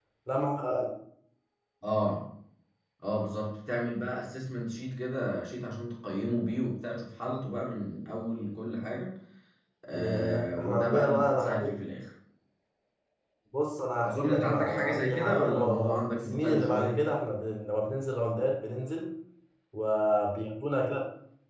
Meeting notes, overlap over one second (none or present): present